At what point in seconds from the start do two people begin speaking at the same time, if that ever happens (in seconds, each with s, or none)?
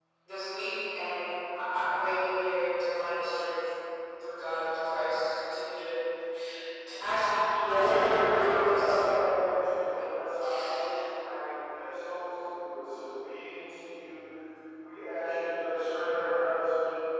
7.6 s